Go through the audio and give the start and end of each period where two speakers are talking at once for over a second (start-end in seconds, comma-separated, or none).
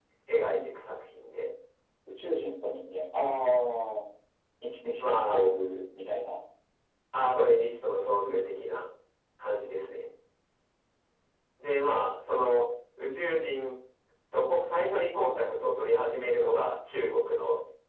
none